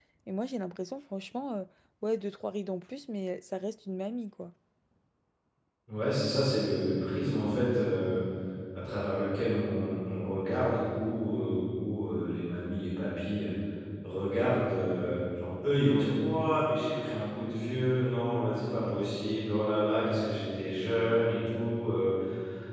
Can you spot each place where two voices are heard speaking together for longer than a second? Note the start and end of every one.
none

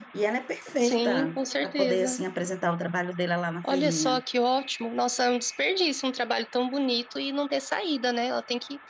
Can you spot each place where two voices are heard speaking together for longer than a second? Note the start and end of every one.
0.8-2.2

